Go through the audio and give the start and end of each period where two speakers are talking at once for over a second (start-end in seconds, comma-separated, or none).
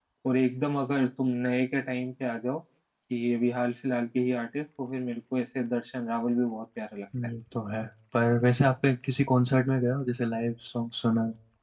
none